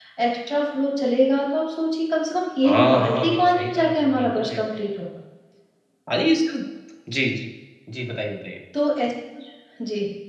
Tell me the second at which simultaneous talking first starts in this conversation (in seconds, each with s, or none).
2.6 s